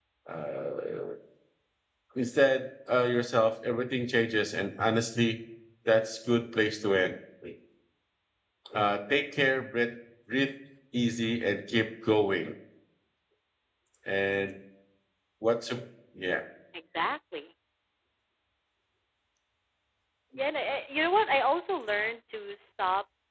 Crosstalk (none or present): none